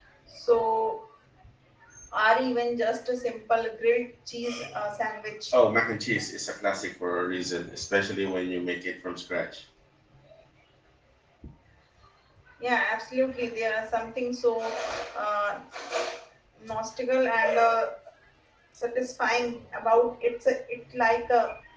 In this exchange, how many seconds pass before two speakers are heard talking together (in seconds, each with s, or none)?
none